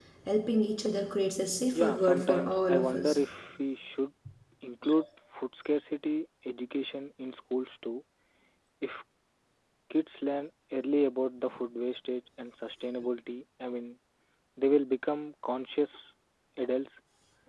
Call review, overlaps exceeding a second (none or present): present